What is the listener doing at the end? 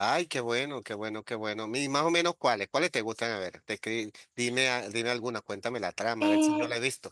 taking over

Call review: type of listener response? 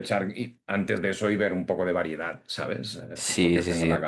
taking over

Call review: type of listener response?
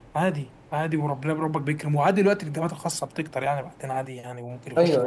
taking over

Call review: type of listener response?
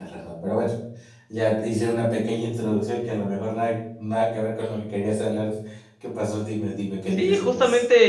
taking over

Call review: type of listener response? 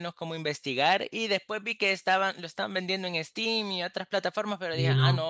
taking over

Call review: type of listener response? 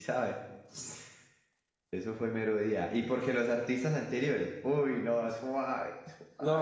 taking over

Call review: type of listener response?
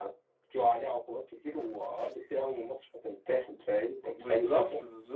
taking over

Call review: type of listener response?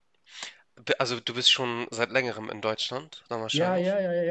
taking over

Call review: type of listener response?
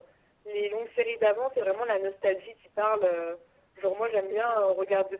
listening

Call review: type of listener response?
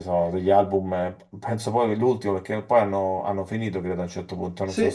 taking over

